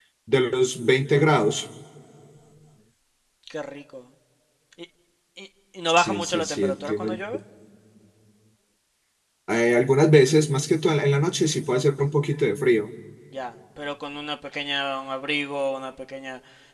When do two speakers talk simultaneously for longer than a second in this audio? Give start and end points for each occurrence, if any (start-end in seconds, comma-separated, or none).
5.9-7.2